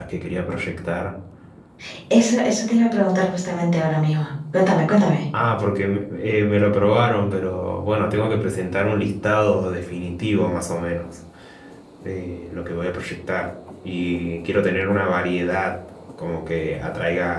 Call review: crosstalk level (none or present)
none